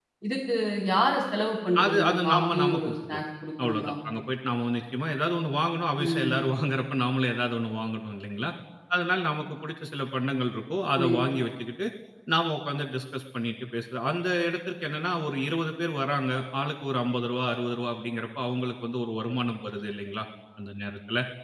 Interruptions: present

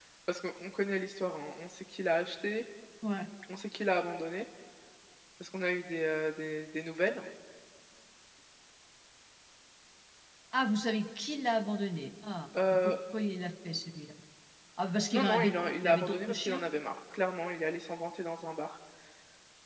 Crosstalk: present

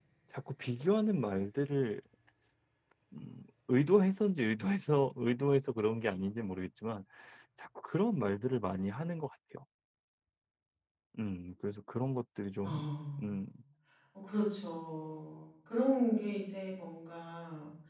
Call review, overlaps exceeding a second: none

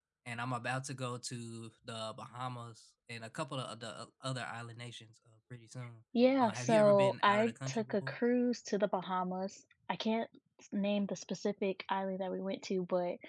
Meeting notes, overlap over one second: present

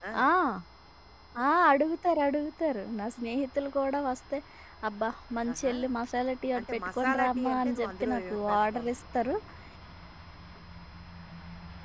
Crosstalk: present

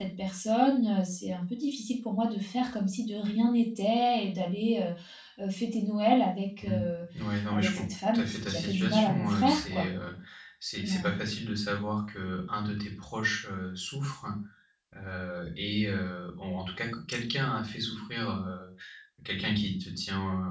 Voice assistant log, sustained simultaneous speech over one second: present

